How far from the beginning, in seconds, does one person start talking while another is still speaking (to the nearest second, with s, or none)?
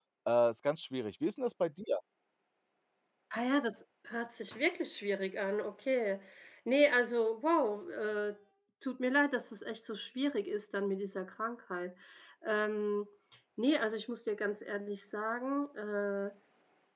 none